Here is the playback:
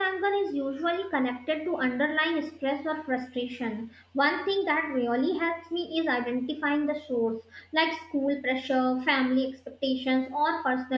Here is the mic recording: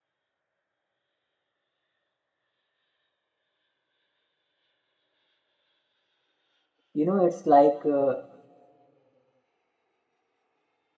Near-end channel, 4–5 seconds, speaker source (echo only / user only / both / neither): neither